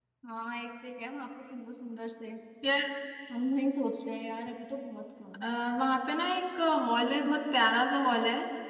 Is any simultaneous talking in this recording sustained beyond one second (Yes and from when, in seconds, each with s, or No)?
No